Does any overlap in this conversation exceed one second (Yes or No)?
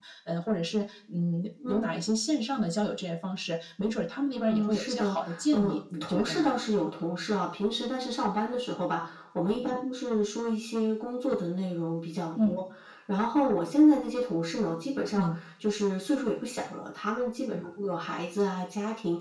Yes